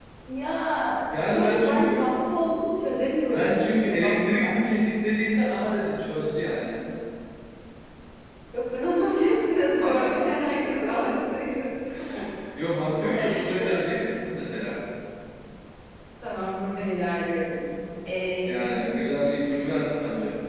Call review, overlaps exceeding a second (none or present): present